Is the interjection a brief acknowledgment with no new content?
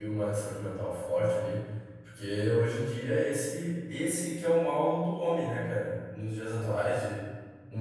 Yes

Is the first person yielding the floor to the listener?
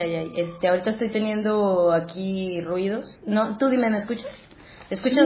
Yes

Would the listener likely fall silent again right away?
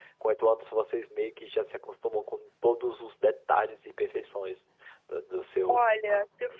No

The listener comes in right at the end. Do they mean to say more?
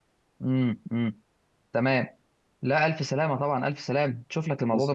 No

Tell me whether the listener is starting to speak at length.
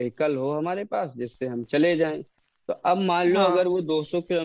No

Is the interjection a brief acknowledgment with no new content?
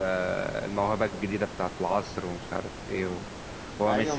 No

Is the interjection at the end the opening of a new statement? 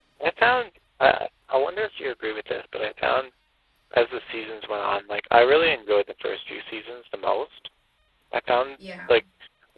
No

